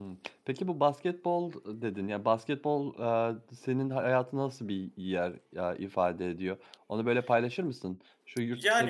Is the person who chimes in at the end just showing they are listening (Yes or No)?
No